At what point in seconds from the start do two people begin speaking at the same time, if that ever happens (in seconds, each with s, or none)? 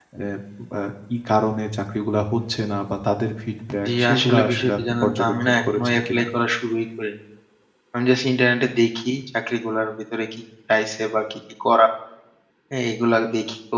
3.7 s